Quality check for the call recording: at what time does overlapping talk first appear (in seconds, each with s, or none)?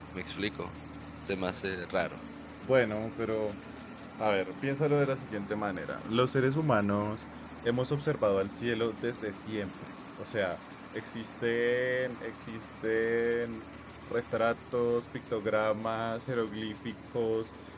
none